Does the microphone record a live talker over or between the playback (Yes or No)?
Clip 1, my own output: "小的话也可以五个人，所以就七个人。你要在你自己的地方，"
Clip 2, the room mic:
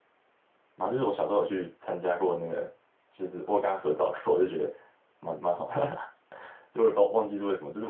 Yes